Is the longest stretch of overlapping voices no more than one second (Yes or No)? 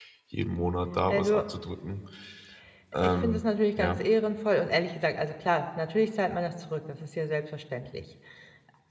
Yes